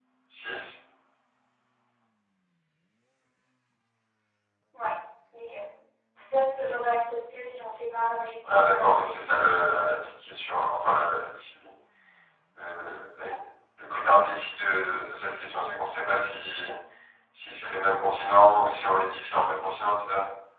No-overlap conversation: No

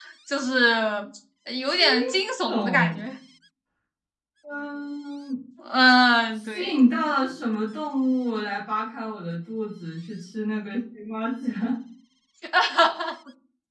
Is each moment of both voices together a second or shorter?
Yes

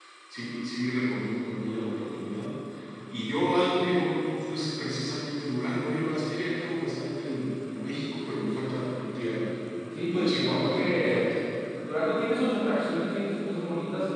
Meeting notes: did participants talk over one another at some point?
Yes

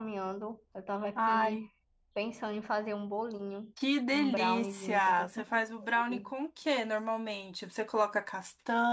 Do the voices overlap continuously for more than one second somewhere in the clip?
Yes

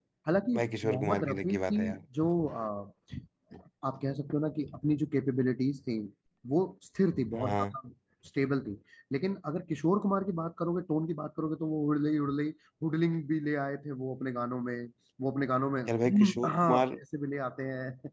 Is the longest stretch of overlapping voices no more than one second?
No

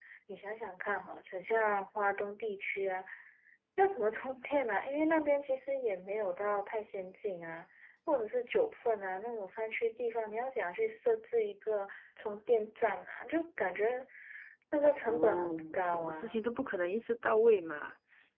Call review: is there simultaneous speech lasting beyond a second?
Yes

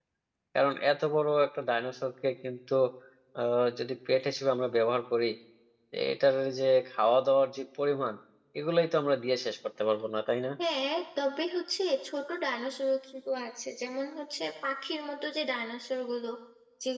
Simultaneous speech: No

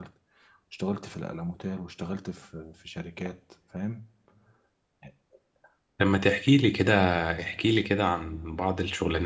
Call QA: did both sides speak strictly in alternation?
Yes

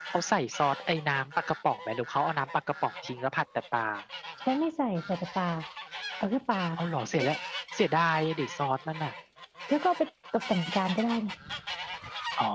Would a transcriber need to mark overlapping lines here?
No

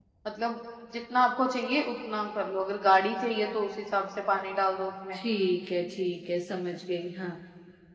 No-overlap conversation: Yes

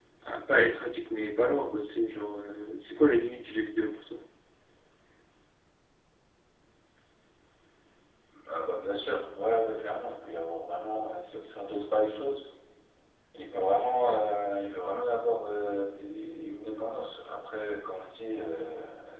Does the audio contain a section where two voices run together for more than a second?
No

